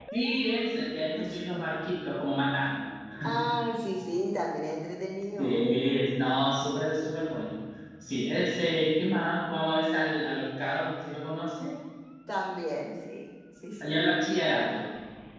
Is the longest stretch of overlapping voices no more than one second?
Yes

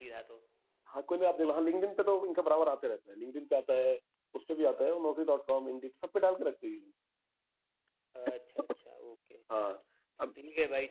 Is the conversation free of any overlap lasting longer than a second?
Yes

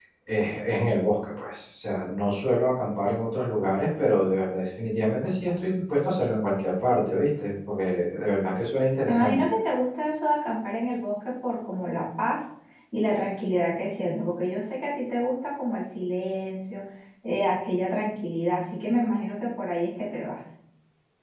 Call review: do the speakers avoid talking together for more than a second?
Yes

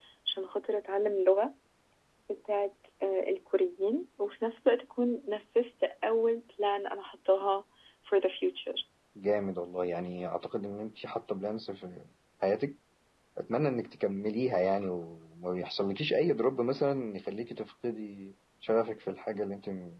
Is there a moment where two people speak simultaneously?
No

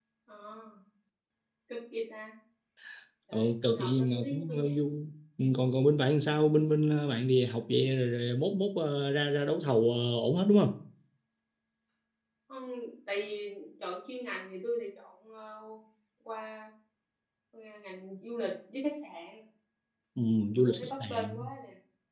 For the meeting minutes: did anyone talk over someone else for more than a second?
Yes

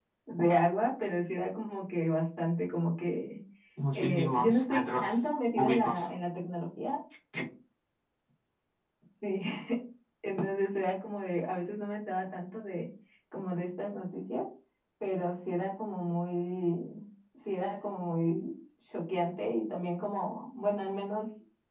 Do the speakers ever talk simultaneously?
Yes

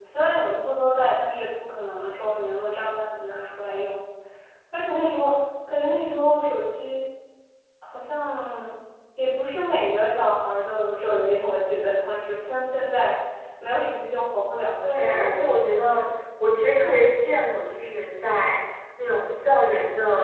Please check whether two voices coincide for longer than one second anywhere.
Yes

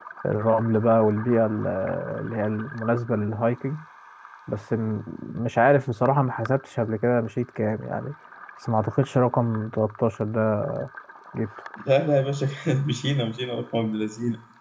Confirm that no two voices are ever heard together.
Yes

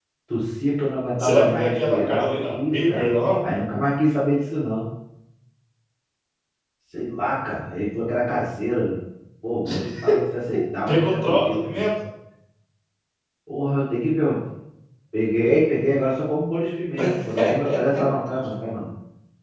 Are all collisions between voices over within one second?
No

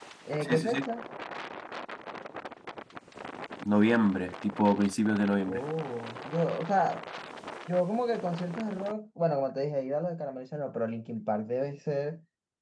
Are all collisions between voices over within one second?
Yes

